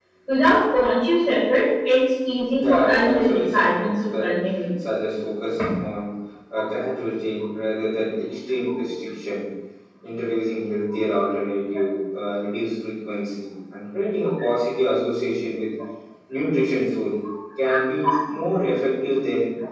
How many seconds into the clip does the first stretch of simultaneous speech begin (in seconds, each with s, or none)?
2.6 s